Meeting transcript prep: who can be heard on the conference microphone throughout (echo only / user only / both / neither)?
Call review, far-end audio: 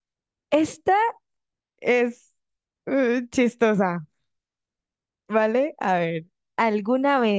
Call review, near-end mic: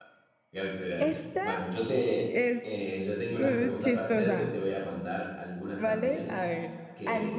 both